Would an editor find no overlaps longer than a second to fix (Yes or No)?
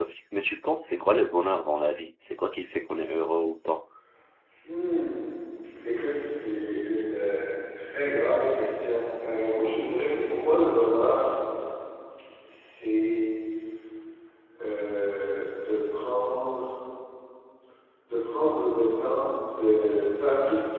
Yes